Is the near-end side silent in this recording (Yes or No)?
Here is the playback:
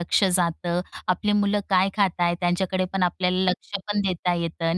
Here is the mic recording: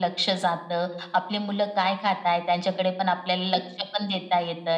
Yes